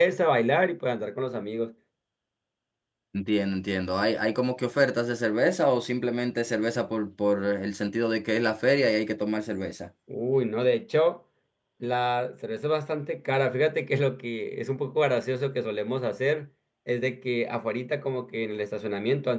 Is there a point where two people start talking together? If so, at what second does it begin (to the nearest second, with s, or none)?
none